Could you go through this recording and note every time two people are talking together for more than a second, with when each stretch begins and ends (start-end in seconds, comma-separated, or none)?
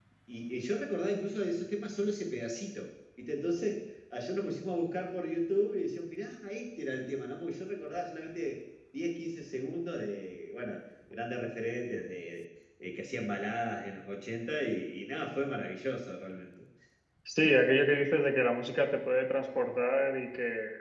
none